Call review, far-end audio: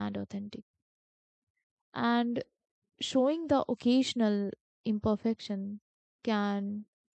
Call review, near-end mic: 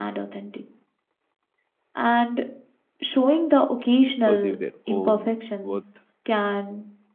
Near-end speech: present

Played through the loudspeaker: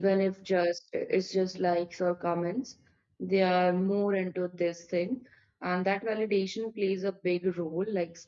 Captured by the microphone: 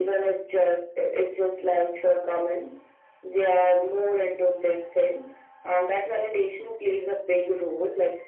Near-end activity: none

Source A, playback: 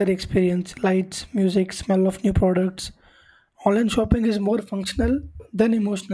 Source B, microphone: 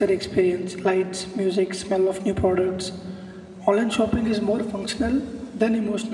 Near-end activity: none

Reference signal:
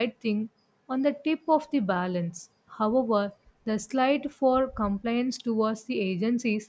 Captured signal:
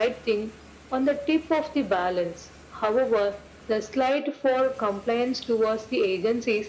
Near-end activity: none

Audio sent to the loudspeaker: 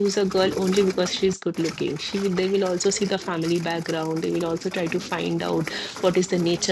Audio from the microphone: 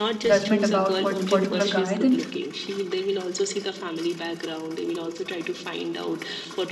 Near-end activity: present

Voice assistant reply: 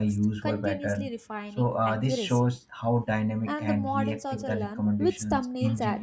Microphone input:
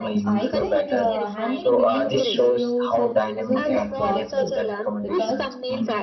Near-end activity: present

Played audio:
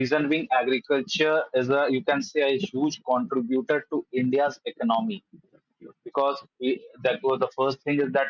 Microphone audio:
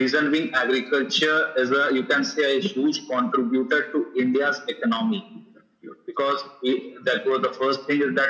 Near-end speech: none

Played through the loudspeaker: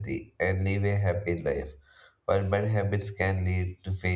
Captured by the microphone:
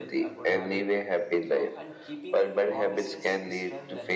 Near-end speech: present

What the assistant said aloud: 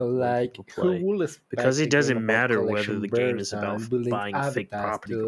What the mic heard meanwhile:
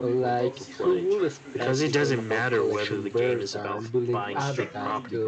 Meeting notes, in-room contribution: present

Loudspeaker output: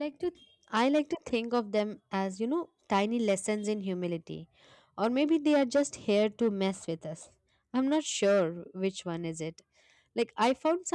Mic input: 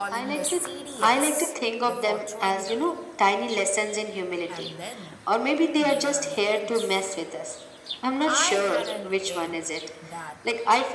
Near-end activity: present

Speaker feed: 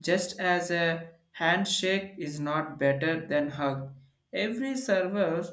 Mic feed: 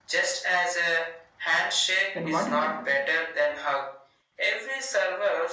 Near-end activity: present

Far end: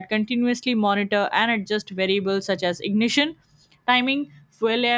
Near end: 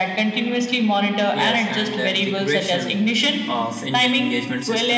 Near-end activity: present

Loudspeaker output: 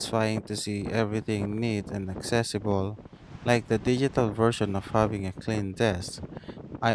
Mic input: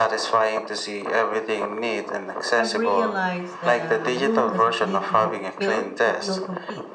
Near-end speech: present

